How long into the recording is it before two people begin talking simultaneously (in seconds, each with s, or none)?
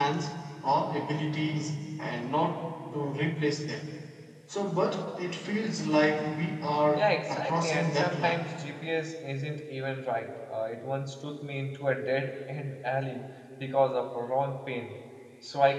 7.0 s